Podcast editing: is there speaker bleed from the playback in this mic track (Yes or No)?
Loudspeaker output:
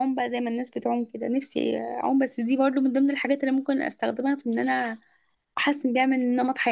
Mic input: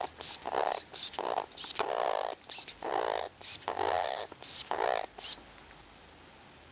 No